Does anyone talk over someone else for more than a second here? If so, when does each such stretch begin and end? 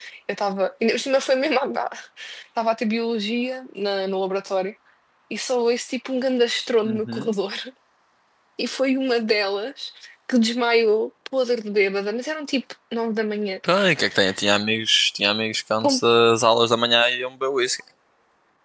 none

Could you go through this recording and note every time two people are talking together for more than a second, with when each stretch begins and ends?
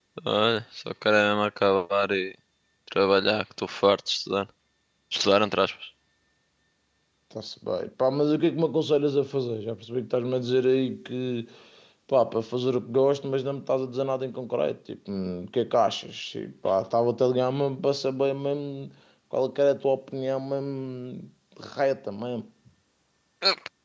none

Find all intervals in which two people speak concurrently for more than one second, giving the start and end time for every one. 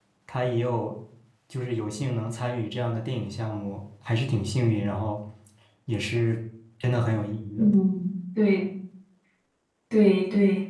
none

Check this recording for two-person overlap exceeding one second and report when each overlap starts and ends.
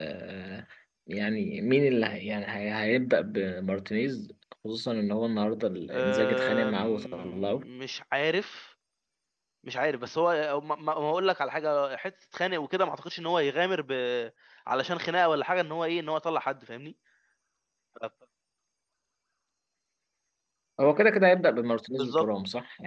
5.9-7.6

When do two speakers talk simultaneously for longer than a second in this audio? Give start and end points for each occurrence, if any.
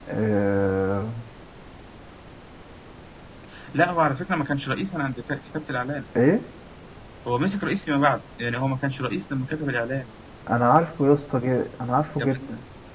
none

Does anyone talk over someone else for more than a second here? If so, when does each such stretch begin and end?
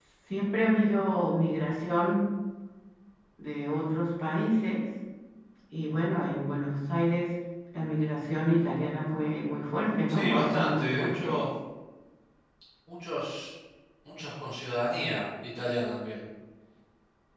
10.1-11.4

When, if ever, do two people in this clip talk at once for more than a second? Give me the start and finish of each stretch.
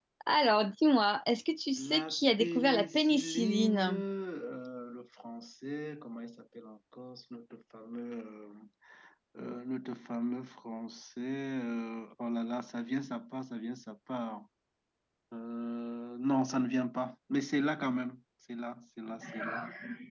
1.8-4.0

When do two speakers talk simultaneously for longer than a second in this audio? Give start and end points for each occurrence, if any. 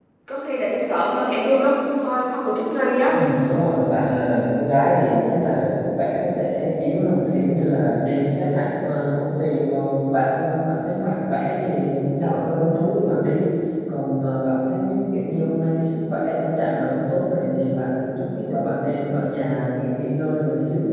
none

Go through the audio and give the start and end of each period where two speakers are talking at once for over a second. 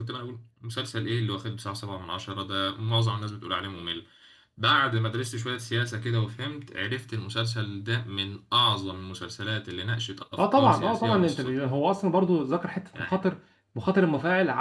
10.4-11.6

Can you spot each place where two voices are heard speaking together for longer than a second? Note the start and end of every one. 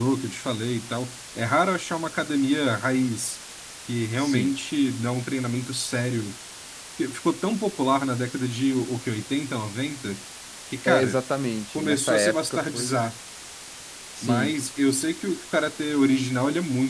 11.8-13.0

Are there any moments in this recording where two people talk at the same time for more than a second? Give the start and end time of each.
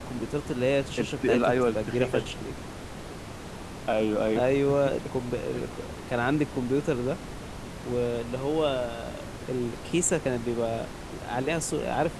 1.0-2.3

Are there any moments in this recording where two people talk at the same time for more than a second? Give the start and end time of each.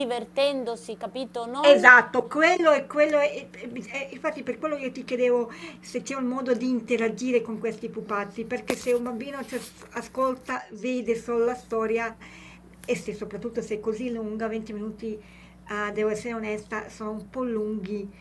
none

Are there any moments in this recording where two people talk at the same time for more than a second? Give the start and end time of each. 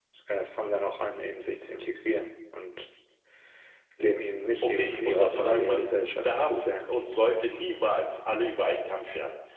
4.6-6.9

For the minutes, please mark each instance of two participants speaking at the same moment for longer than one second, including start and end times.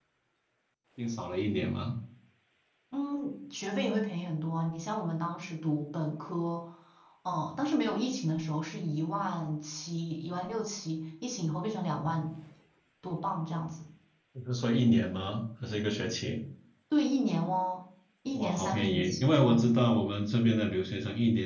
18.3-19.7

